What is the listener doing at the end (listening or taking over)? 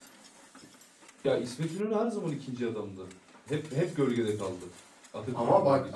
taking over